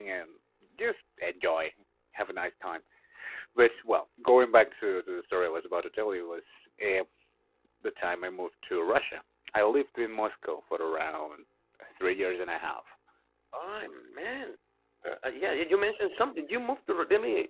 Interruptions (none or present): none